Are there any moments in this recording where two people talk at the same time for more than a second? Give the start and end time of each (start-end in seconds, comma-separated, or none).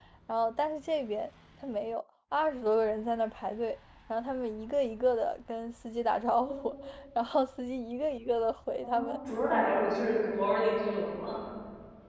none